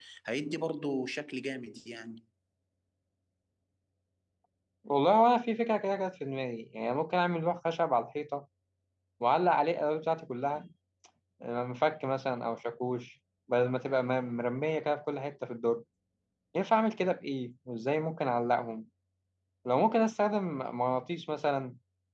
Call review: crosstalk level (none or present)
none